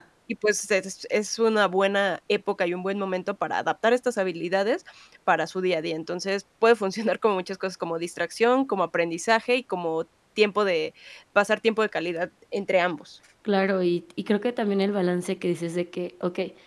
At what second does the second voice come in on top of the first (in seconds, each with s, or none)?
none